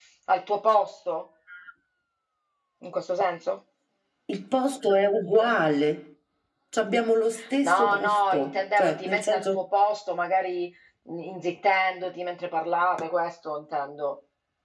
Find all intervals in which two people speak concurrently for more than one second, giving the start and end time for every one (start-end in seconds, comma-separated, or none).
7.6-9.6